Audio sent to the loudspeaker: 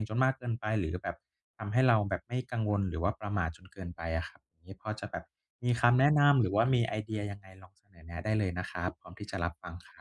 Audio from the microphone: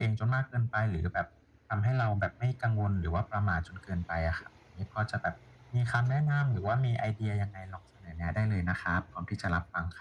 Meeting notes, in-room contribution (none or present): none